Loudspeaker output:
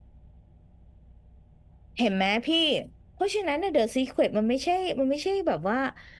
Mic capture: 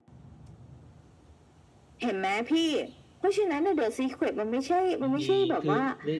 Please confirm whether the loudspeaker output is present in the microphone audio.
Yes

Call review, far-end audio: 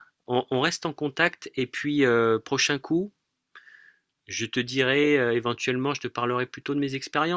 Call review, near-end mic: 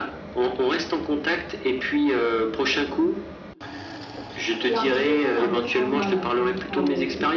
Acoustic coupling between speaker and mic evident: Yes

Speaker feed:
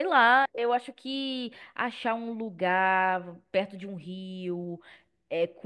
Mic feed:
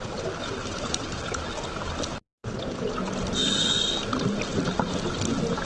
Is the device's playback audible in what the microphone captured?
No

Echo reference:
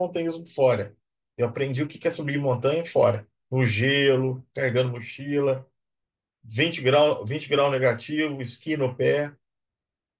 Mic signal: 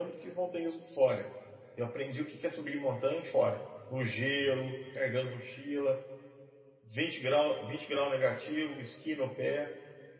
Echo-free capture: No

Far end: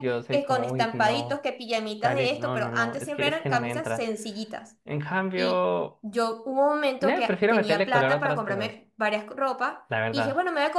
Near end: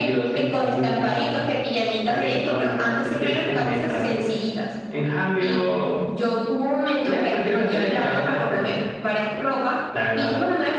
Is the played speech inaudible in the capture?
No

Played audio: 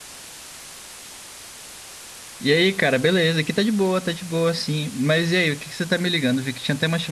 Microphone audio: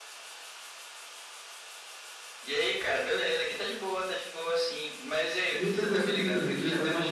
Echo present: Yes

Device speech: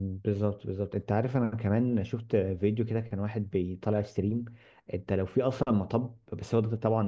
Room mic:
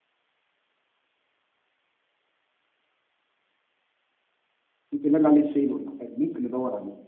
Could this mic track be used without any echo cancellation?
Yes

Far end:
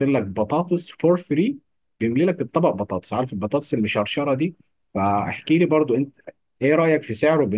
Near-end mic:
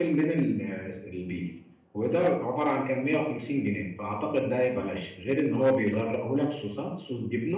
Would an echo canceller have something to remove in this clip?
No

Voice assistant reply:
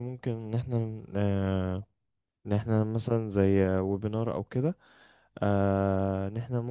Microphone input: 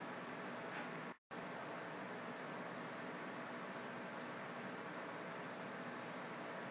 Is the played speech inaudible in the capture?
Yes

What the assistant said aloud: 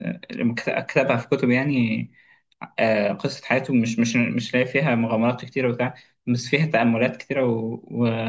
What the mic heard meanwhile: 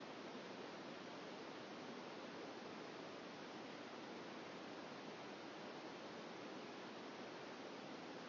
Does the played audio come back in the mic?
No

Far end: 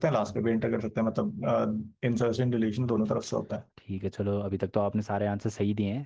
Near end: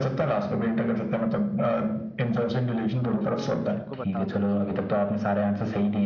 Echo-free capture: No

